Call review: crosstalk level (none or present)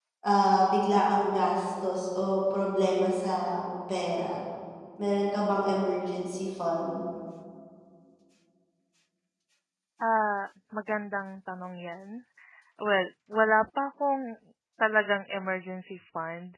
none